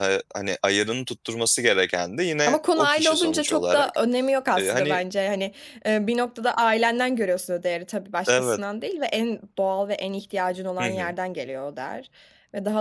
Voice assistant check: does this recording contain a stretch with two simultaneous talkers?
Yes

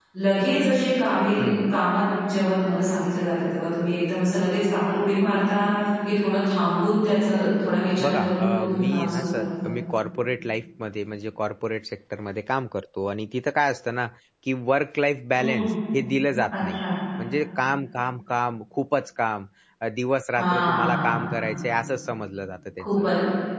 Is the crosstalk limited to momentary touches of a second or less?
No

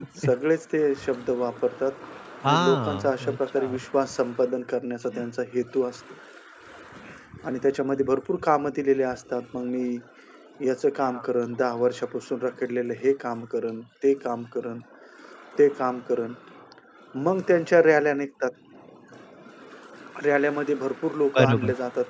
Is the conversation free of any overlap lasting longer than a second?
No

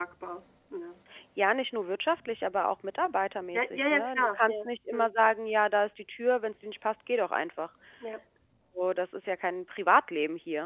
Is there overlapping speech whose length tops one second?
Yes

